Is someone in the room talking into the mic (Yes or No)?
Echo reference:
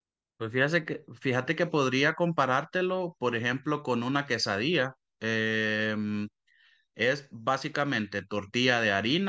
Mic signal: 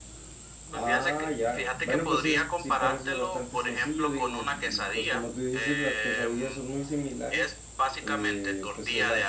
Yes